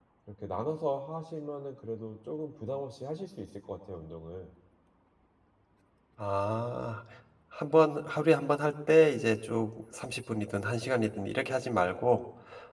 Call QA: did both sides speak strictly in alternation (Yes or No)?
Yes